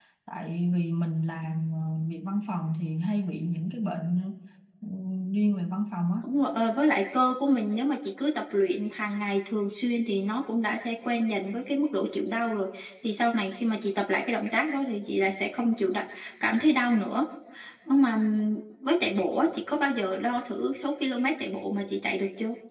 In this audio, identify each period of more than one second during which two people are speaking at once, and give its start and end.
none

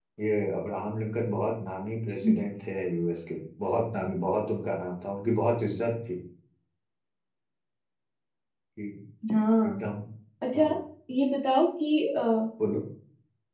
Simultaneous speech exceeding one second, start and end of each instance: none

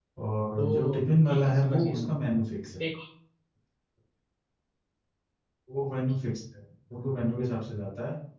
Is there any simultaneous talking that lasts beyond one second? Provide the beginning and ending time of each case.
0.6-2.1

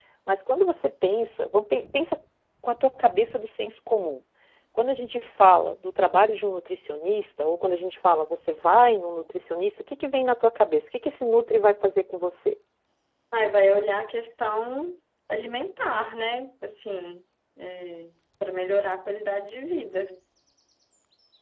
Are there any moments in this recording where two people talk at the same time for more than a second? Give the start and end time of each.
none

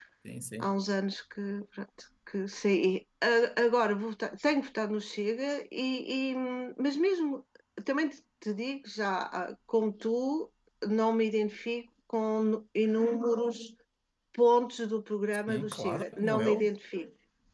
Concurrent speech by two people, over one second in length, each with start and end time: 15.5-16.7

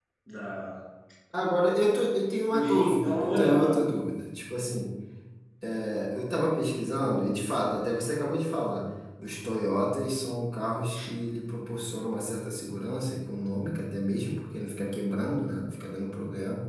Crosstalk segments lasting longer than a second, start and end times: 2.5-3.7

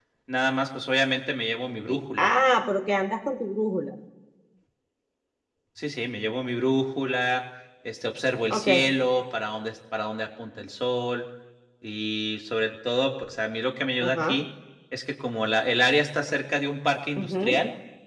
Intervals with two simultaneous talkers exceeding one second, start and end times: none

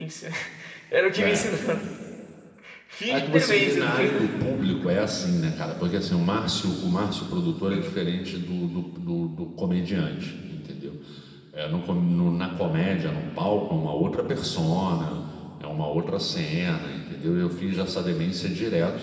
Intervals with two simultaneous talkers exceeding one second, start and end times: 3.1-4.4

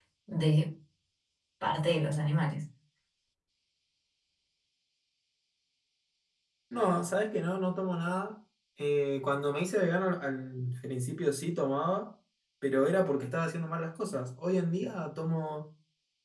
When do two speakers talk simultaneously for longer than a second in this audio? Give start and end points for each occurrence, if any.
none

